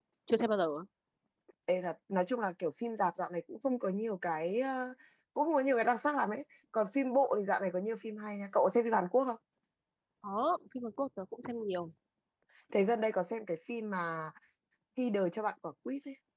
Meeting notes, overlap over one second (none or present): none